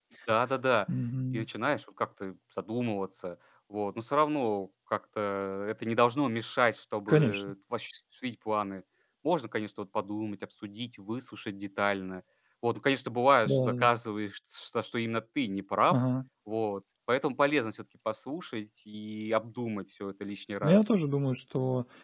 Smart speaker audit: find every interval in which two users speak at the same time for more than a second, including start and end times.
none

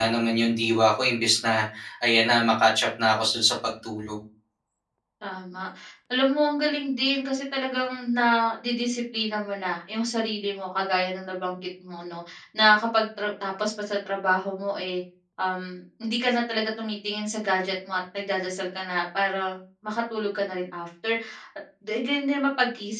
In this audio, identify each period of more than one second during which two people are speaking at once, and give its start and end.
none

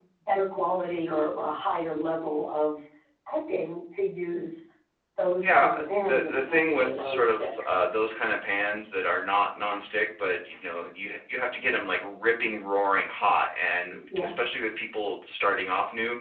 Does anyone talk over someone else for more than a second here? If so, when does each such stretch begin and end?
6.1-7.5

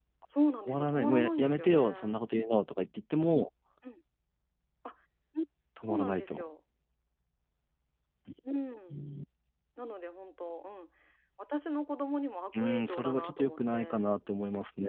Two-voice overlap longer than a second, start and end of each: 0.7-2.2, 12.6-14.0

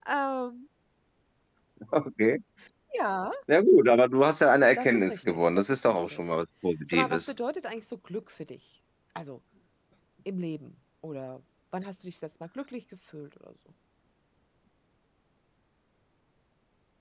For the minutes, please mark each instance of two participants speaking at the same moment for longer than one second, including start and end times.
4.8-6.2

